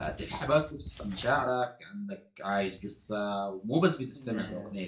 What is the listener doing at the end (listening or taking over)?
listening